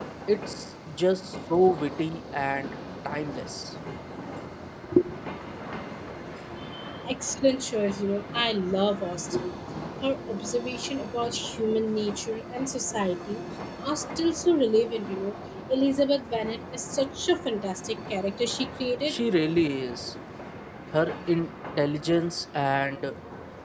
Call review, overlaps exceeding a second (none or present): none